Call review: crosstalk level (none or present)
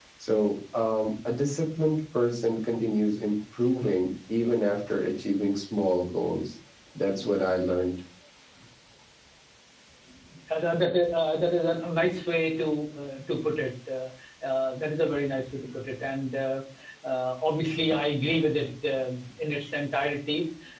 none